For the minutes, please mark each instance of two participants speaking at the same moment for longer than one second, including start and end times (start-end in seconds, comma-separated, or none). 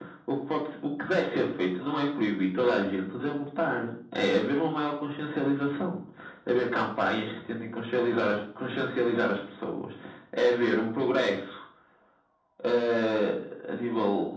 none